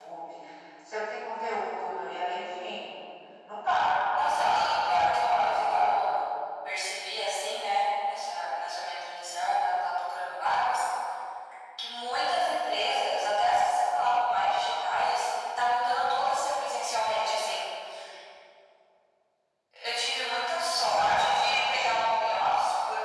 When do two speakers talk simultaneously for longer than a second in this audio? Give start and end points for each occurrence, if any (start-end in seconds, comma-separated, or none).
4.2-6.0, 20.7-22.1